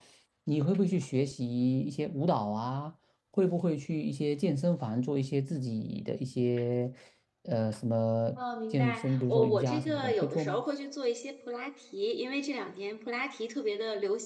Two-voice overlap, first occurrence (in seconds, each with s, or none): 8.7 s